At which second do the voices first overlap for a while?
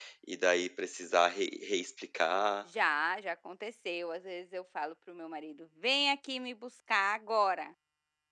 none

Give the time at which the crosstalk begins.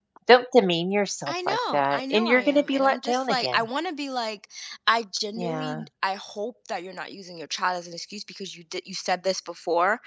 1.3 s

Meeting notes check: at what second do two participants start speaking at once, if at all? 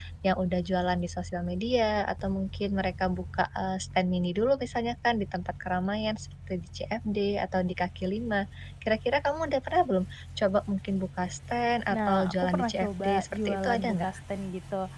11.9 s

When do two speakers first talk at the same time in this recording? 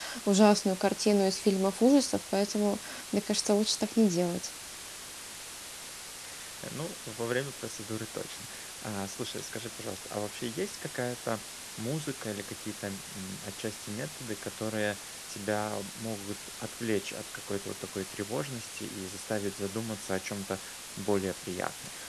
none

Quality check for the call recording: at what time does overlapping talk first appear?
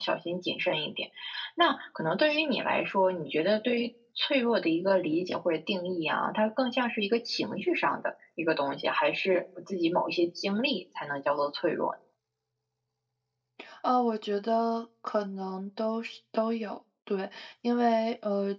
none

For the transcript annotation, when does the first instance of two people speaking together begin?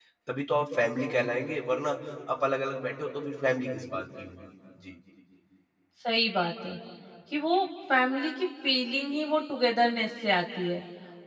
none

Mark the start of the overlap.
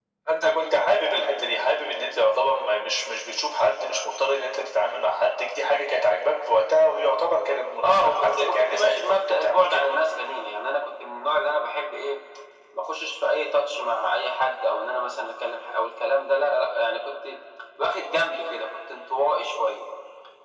7.8 s

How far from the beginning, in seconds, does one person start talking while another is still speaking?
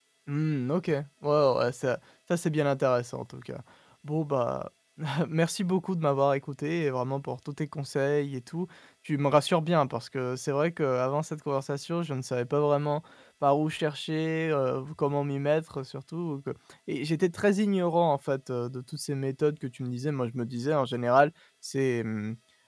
none

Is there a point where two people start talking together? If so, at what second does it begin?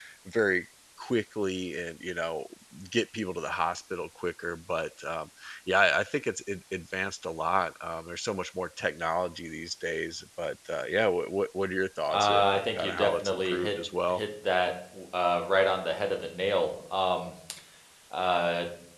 12.1 s

